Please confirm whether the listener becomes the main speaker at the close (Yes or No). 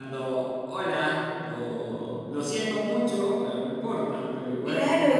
Yes